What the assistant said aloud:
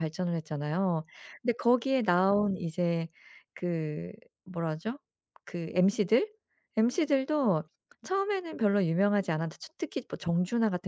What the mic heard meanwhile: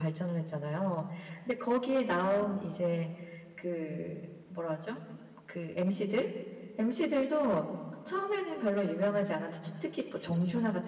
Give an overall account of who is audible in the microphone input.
echo only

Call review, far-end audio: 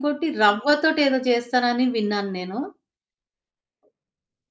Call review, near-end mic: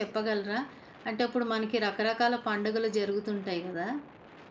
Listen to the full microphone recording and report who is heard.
user only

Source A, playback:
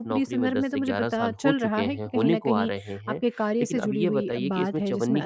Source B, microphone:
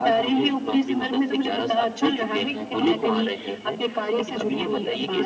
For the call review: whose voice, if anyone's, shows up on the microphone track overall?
echo only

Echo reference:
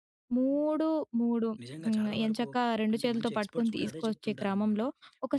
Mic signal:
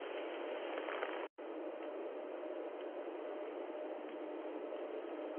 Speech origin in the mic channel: neither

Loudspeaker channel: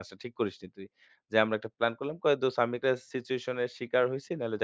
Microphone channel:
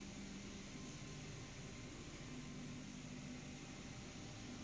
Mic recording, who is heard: neither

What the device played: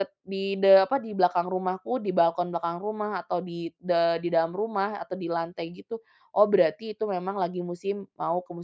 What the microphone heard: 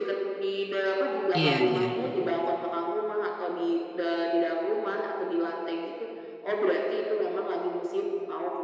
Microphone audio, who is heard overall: both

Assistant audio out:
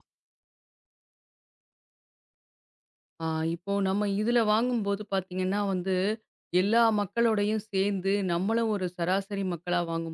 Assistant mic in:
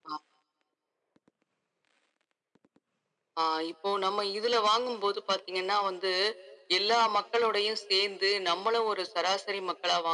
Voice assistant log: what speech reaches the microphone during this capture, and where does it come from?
echo only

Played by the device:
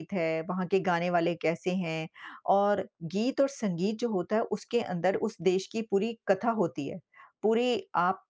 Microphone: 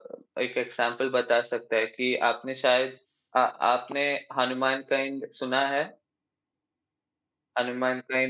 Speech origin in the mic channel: user only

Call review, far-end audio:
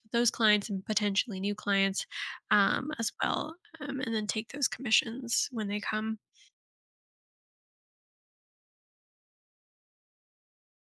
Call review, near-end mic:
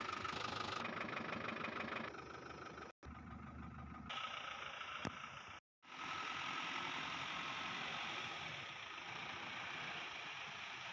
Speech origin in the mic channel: neither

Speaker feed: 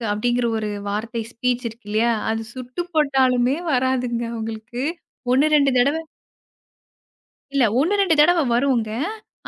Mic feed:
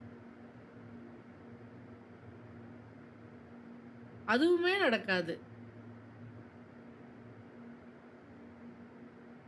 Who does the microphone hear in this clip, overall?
user only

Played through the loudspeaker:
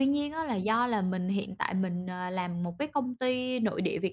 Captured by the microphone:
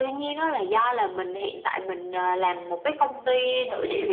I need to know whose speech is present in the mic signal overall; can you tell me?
both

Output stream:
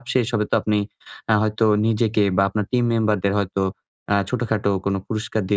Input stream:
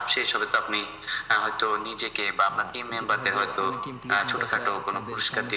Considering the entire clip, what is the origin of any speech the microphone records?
both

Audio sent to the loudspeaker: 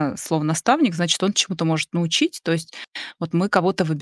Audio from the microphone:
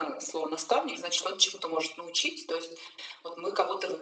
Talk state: echo only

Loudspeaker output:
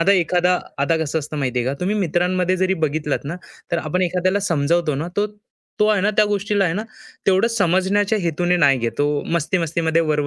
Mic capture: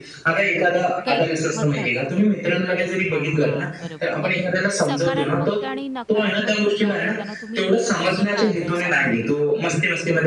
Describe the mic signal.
both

